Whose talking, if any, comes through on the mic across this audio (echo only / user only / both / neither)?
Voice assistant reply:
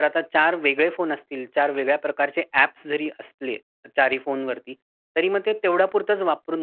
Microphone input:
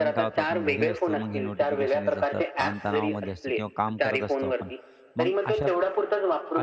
both